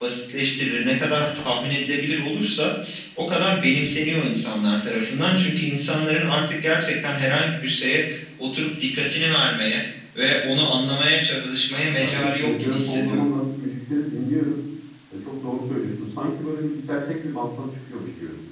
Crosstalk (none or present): present